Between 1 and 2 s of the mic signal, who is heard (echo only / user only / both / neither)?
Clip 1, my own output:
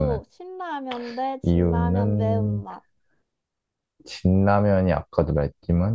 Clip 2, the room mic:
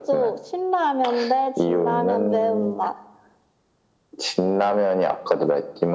echo only